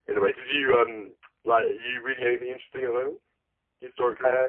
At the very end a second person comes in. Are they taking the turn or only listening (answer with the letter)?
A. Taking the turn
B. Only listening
A